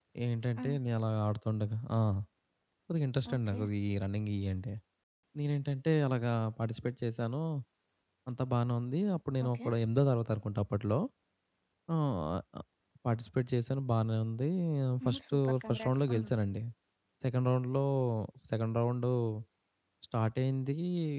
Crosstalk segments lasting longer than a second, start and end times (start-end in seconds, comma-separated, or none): 15.0-16.3